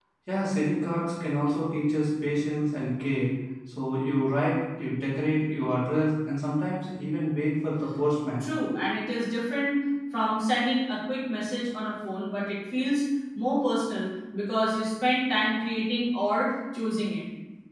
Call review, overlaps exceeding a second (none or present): none